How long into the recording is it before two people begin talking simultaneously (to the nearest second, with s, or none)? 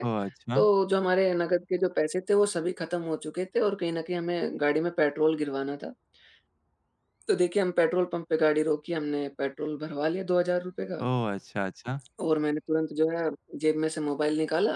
none